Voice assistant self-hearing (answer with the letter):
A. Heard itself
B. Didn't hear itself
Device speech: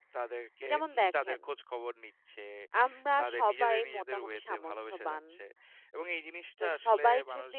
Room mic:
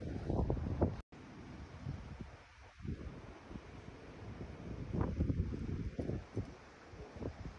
B